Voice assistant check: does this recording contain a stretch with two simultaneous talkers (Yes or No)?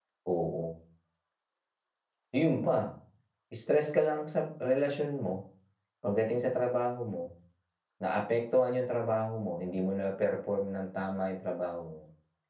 No